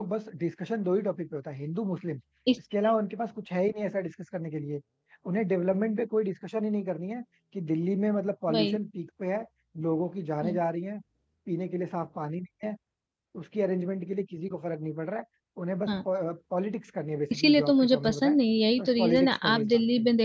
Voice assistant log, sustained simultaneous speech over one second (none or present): present